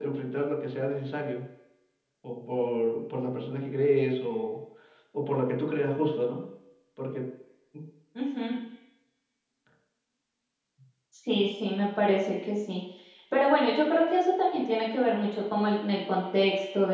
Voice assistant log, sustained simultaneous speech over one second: none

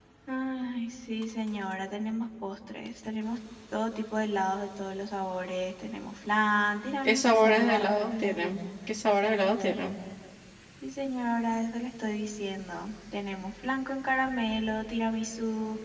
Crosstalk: present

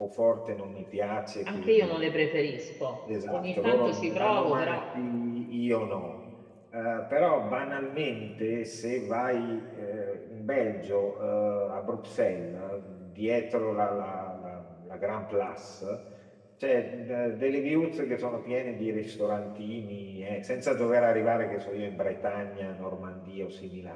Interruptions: present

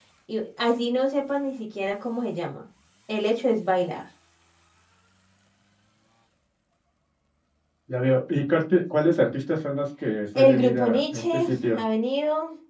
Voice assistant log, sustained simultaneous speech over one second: present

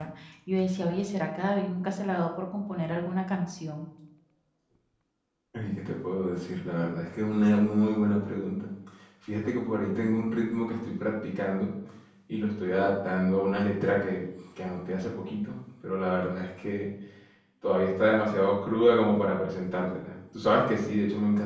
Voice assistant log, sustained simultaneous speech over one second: none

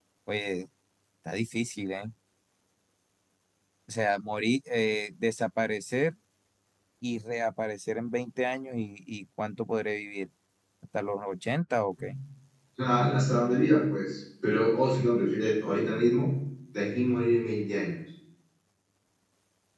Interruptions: none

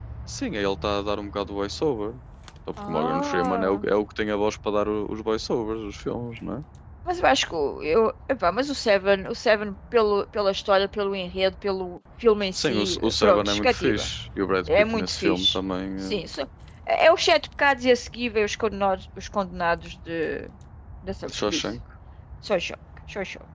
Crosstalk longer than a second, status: present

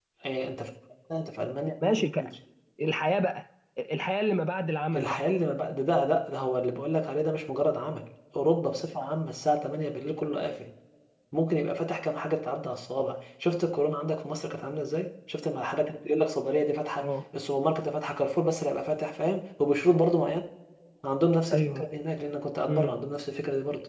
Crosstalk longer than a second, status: none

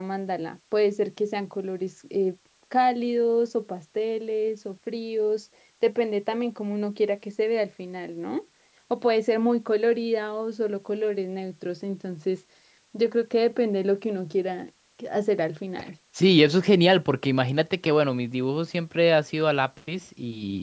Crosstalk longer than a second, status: none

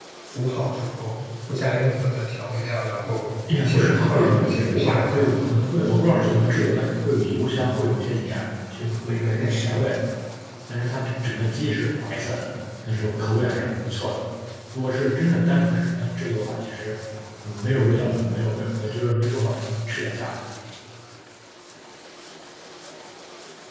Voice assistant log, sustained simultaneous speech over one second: present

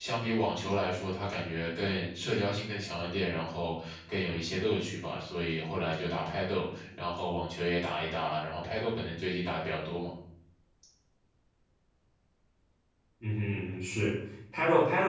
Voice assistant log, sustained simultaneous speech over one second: none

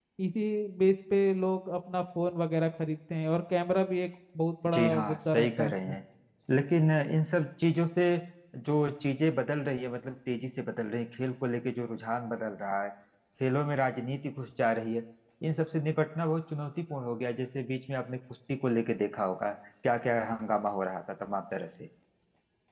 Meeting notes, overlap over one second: present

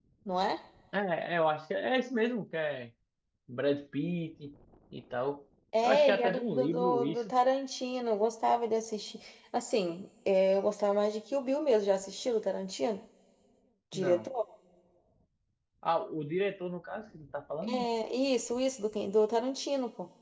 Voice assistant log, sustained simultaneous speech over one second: present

